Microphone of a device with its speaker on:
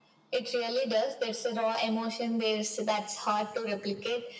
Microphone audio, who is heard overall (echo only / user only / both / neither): echo only